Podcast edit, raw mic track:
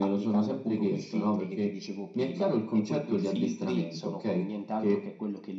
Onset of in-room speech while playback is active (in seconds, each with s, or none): none